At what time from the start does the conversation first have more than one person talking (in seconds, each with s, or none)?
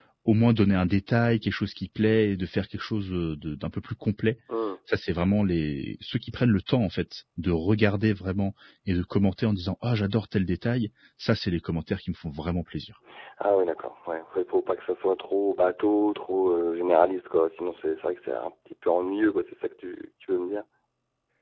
none